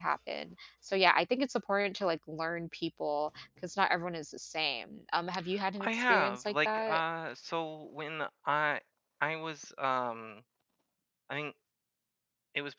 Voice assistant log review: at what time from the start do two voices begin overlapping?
5.8 s

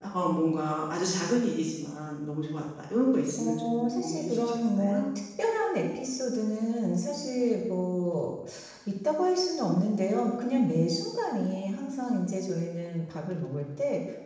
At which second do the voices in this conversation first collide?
3.4 s

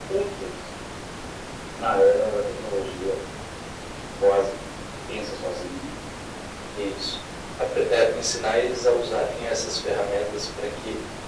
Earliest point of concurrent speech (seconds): none

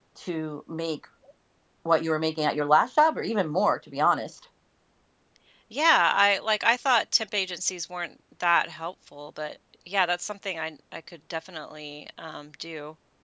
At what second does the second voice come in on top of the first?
none

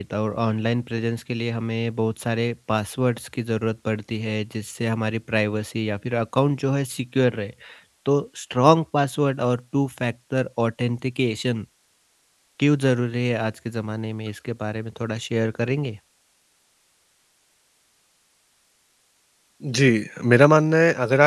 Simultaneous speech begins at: none

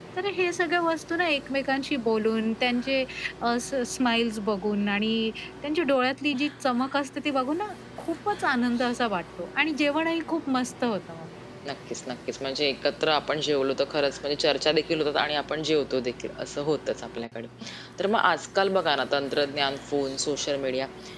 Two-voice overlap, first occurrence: none

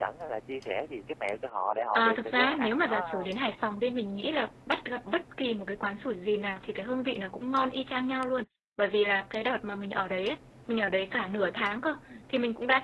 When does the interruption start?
1.9 s

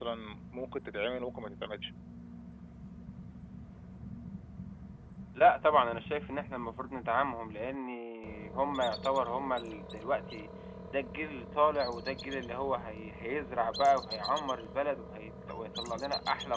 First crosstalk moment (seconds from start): none

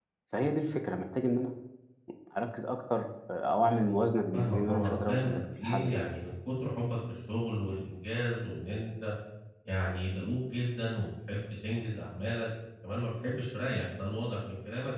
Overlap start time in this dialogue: 4.3 s

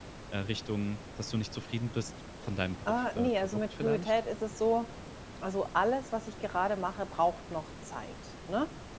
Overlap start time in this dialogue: 2.9 s

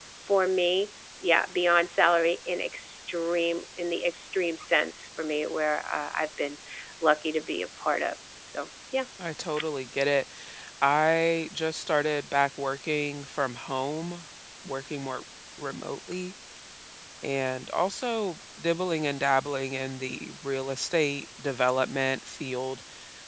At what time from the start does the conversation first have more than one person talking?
none

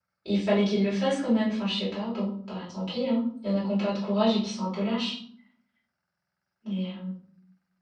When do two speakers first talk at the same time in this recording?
none

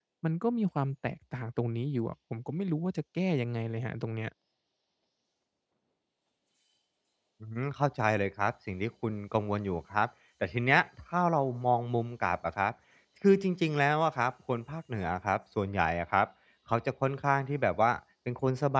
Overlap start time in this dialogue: none

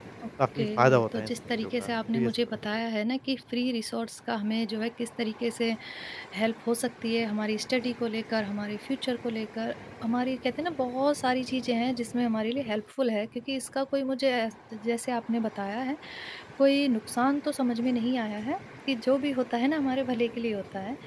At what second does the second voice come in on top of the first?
0.6 s

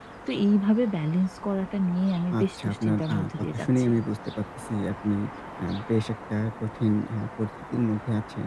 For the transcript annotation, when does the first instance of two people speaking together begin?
2.3 s

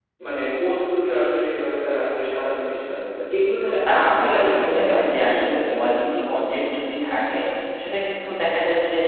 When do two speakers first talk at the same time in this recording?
3.9 s

